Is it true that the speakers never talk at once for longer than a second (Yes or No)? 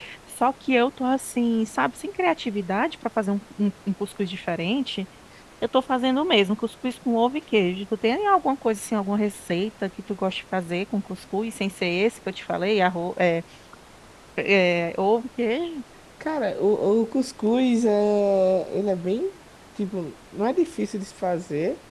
Yes